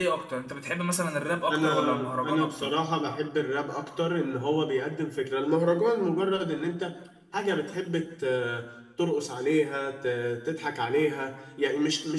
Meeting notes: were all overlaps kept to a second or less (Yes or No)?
No